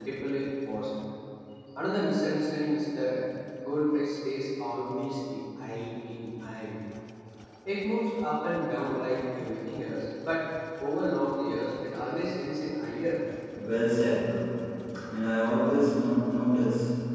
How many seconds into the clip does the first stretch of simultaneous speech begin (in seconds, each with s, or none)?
none